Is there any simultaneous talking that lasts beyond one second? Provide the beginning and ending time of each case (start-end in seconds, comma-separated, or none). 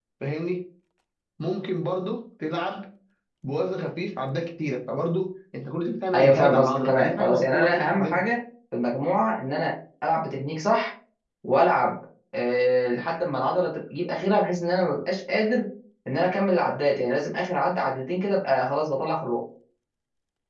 6.1-8.2